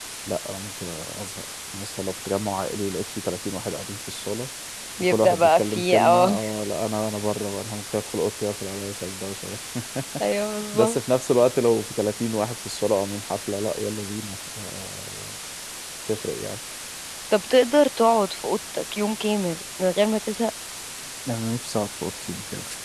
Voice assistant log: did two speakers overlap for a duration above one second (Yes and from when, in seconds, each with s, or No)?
Yes, from 5.0 s